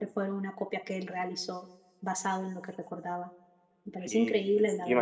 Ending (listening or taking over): taking over